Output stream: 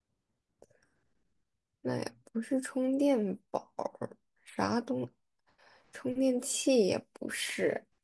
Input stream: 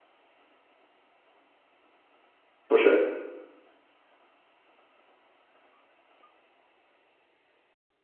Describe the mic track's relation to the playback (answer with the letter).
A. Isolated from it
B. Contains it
A